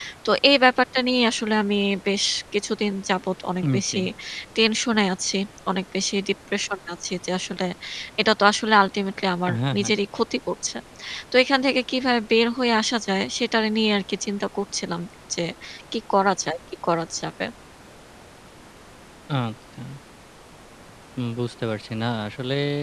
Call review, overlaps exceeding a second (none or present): none